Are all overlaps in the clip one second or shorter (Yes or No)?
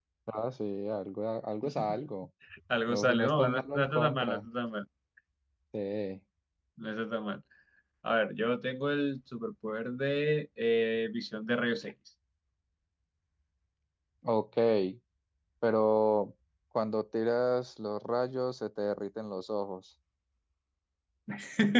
No